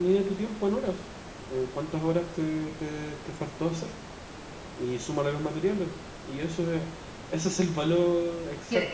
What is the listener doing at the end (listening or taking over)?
taking over